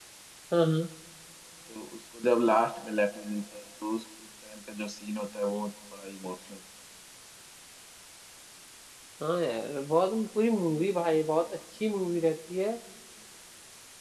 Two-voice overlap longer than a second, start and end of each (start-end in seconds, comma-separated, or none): none